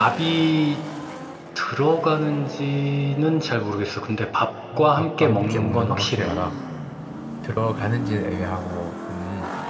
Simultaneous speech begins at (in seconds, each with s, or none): 4.7 s